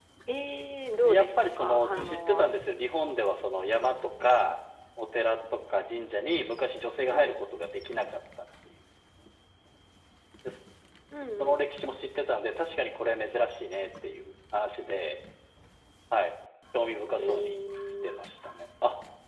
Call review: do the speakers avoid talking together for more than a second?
No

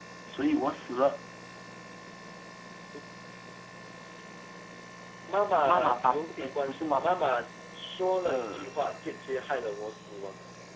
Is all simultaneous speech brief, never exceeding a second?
No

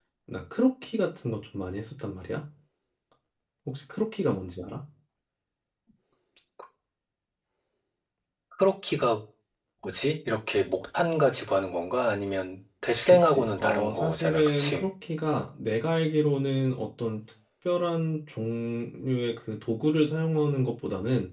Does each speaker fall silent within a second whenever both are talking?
No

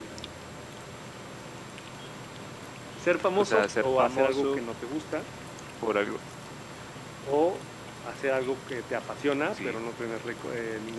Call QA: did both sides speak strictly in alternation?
No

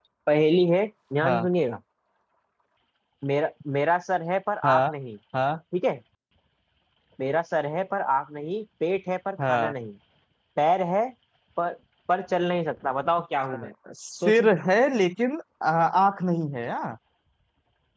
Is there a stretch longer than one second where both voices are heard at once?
No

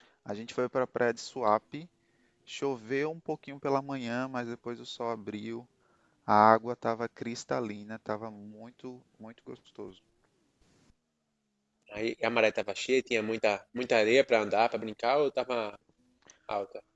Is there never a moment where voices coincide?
Yes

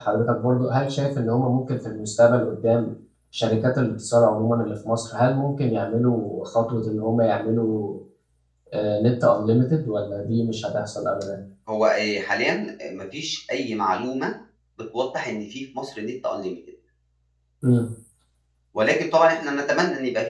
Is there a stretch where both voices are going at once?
No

